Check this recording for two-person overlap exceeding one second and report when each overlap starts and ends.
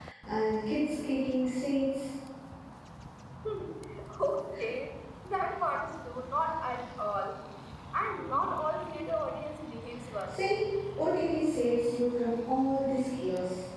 none

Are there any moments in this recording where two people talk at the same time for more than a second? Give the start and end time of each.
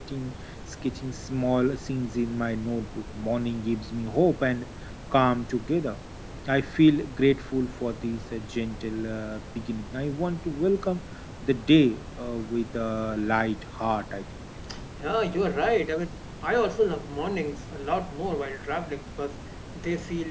none

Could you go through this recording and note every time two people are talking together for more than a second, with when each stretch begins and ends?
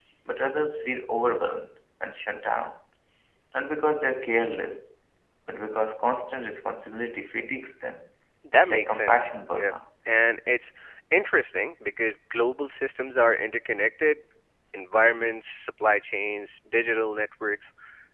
8.5-9.7

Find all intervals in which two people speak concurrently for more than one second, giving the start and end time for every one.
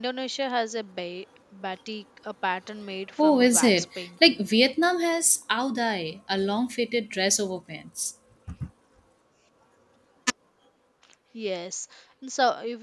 3.2-4.5

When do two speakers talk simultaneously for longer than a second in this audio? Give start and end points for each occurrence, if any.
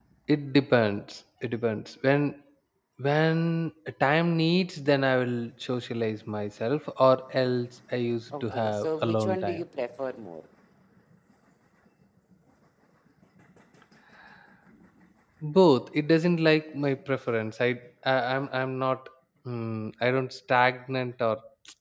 8.3-9.6

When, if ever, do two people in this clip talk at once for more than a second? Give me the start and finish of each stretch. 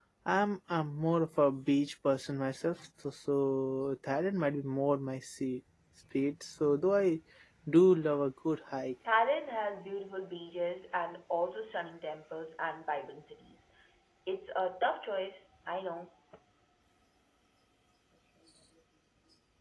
none

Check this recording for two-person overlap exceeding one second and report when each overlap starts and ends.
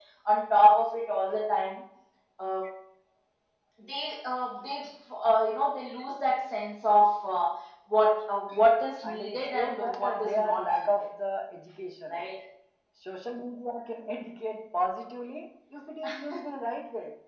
9.0-11.1

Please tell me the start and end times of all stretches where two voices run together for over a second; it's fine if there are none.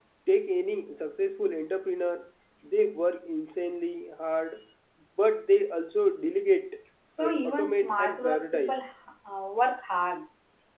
7.2-8.8

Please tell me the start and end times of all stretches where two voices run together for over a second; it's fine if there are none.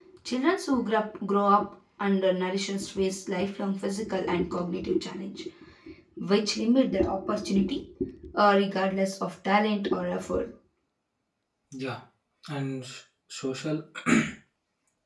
none

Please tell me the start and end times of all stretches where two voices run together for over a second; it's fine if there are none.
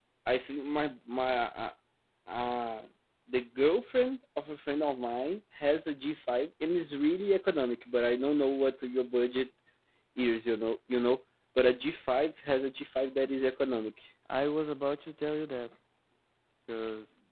none

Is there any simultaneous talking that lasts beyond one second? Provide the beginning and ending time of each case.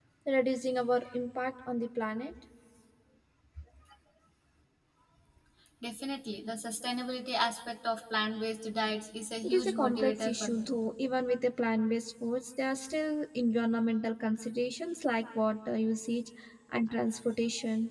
9.4-10.7

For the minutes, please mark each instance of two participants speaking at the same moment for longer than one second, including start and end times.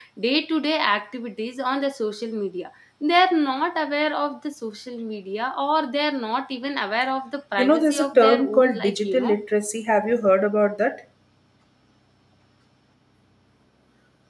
7.6-9.3

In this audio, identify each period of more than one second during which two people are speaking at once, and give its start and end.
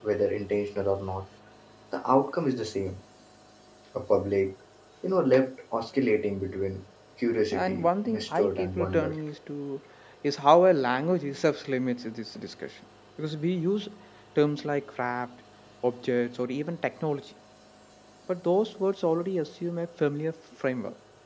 7.5-9.1

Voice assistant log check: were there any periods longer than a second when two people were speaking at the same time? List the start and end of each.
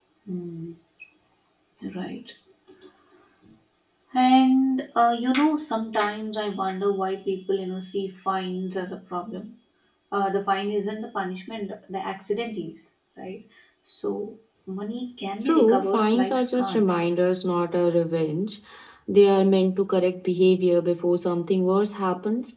15.4-16.8

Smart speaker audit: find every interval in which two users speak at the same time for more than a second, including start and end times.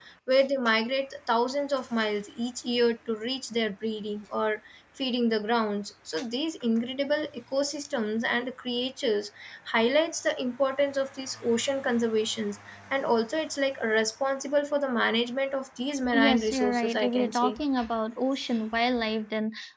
16.1-17.6

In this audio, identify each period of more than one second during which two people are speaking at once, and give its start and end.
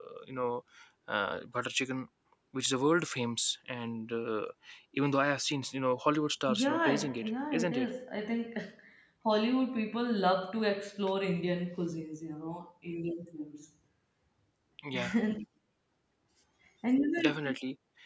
6.5-7.9

